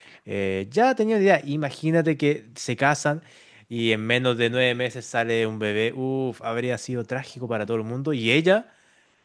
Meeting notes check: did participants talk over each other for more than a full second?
No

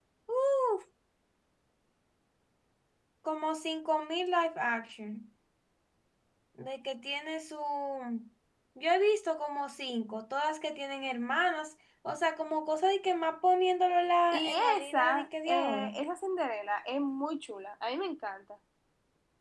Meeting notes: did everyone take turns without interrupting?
No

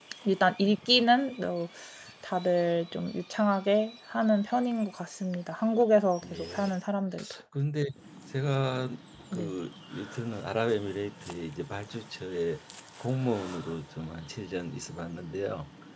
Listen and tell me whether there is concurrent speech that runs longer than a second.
No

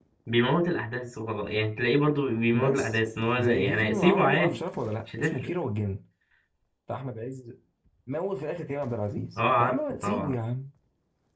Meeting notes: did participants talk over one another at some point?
Yes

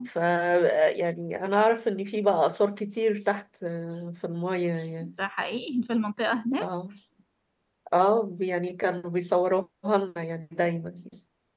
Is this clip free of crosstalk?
Yes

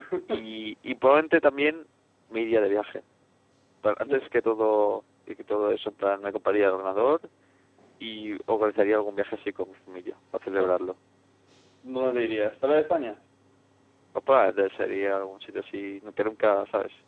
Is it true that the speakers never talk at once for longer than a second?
Yes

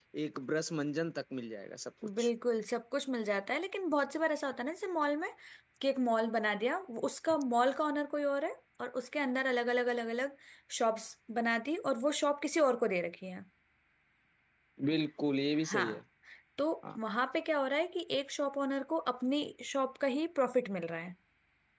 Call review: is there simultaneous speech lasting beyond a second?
No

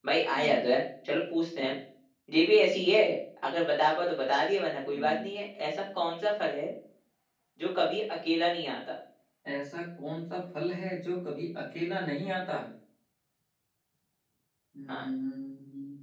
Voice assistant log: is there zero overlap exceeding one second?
Yes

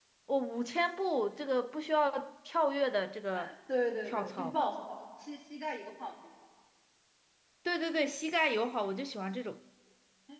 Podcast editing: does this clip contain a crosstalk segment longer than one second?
No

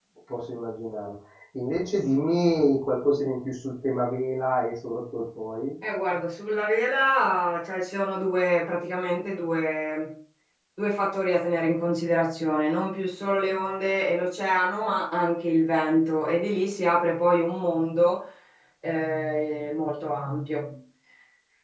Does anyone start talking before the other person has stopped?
No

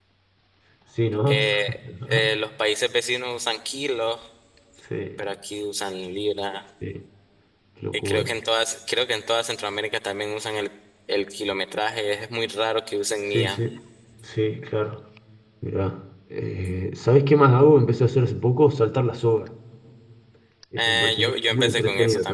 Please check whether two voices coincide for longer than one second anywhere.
Yes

